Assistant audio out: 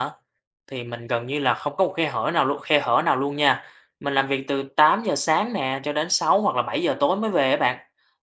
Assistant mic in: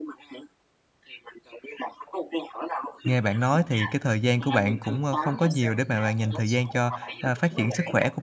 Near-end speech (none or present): present